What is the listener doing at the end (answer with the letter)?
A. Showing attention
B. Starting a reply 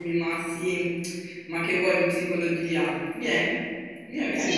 B